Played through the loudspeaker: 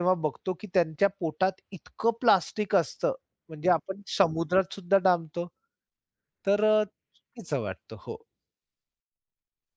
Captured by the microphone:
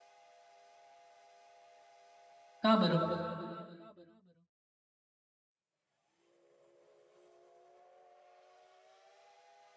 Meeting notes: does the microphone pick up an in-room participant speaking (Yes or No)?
Yes